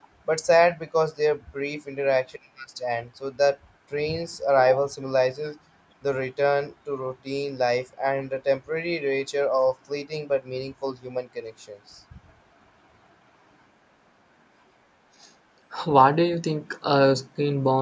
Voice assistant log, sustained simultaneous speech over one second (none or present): none